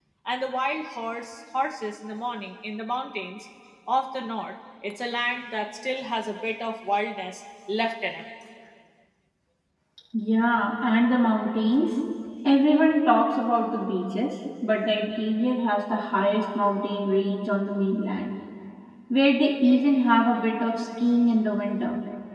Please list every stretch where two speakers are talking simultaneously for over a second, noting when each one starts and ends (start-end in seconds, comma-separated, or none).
none